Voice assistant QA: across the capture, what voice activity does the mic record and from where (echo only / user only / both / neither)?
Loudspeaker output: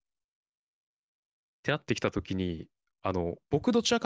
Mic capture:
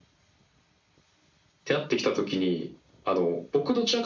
echo only